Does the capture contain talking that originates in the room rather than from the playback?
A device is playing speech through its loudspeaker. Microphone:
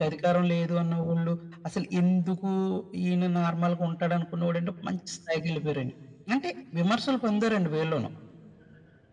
No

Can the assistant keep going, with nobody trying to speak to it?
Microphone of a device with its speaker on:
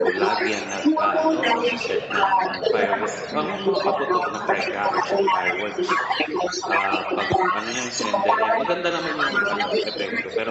No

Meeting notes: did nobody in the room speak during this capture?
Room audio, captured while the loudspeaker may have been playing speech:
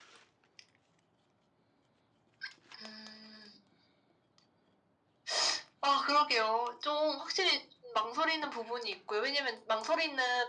Yes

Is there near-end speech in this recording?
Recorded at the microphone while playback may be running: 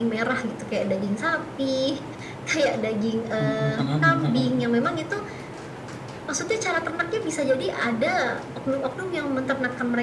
Yes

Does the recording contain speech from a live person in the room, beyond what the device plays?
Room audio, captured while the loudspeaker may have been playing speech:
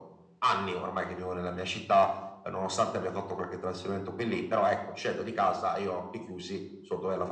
No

